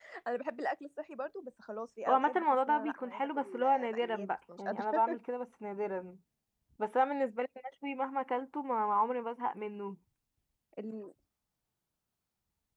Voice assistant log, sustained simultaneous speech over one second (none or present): present